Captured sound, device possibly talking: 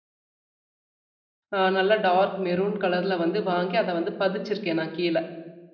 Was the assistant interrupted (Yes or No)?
Yes